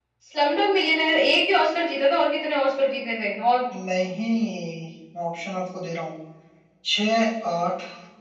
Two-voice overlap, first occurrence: none

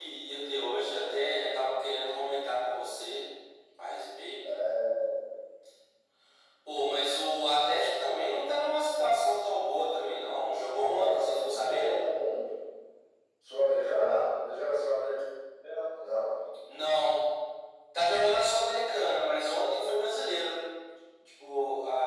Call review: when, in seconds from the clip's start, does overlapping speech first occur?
10.8 s

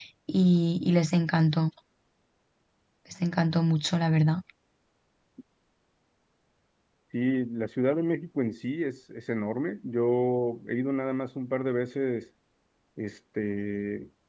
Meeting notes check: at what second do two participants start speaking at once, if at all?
none

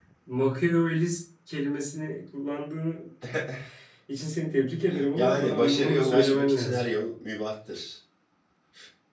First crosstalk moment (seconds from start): 5.2 s

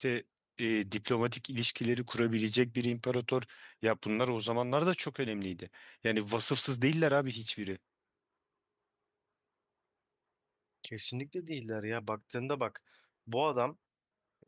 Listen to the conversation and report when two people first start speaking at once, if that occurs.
none

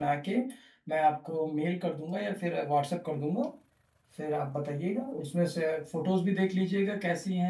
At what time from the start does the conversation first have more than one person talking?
none

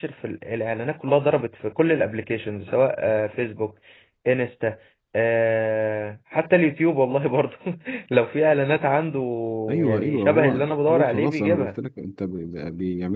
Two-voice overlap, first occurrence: 9.8 s

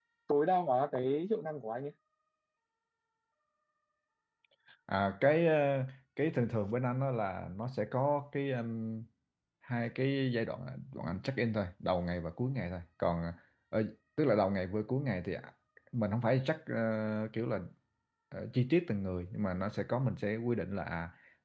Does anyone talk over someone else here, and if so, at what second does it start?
none

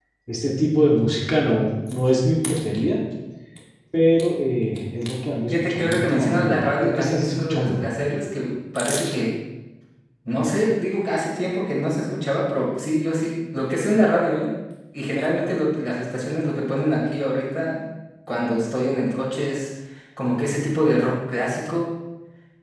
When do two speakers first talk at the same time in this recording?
5.5 s

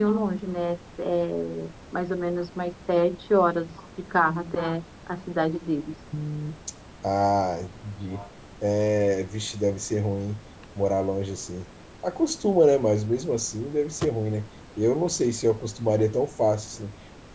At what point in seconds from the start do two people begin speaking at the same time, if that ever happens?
none

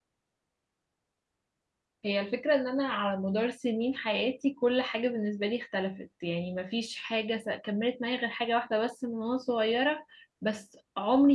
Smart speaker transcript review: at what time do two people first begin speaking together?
none

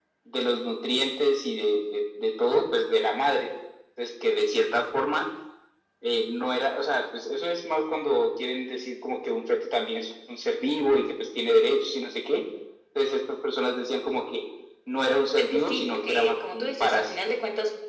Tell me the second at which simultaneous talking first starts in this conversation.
15.4 s

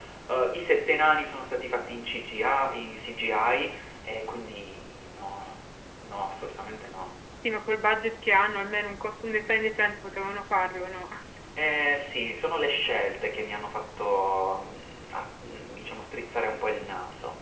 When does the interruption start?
none

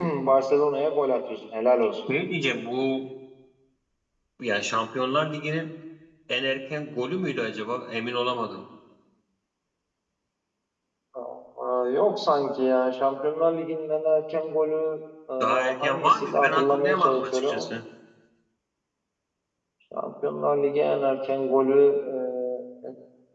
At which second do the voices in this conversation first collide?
15.4 s

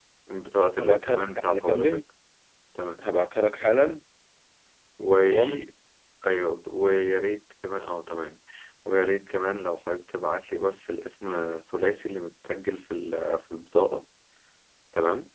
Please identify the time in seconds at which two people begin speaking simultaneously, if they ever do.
0.8 s

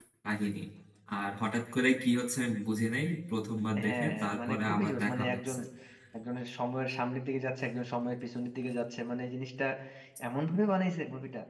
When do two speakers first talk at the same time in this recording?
3.7 s

